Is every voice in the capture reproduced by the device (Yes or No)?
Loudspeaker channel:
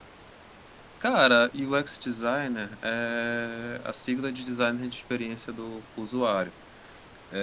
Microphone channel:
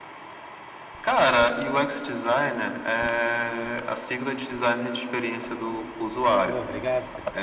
No